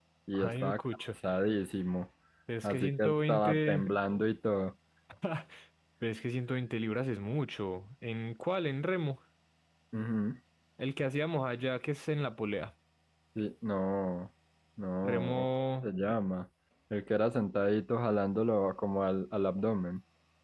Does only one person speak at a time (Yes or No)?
No